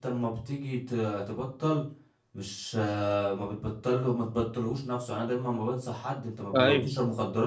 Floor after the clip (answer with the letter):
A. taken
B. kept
B